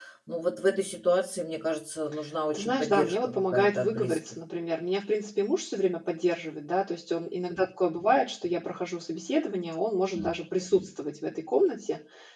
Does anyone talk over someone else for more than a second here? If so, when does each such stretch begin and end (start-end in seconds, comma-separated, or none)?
2.5-4.4